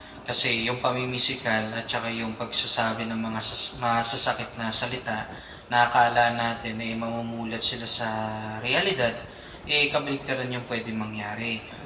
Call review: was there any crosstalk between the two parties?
No

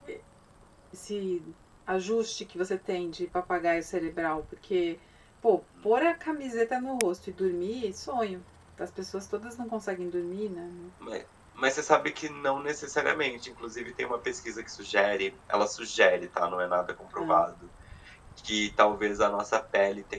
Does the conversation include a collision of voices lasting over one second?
No

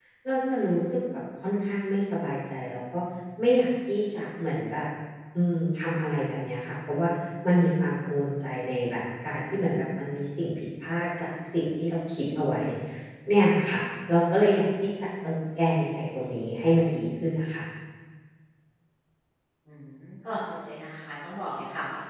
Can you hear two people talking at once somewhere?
No

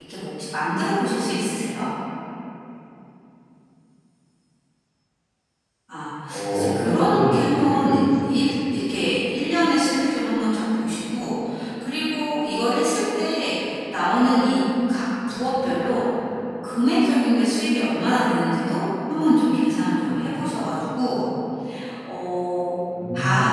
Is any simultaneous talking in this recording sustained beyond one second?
Yes, from 6.5 s

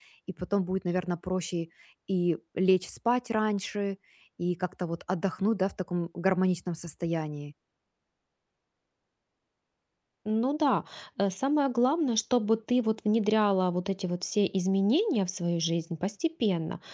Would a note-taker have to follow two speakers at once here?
No

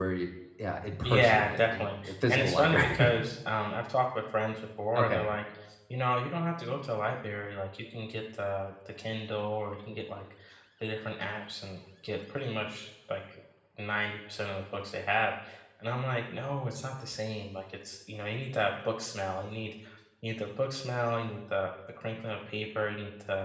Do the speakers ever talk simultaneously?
Yes, from 1.0 s

